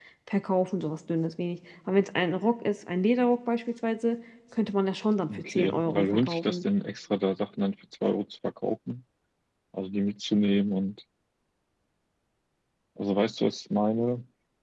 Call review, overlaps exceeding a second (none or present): present